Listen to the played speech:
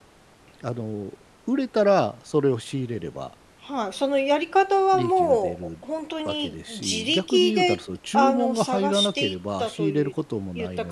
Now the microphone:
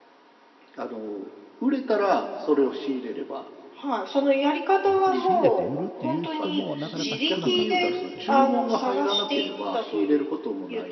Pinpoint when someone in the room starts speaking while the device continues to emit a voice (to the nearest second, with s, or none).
5 s